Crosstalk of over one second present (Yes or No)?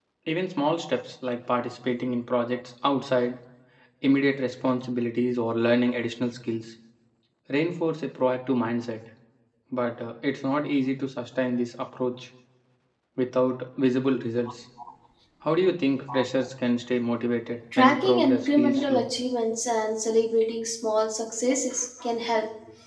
Yes